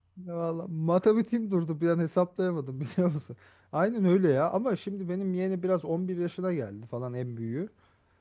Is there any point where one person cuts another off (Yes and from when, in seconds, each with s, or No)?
No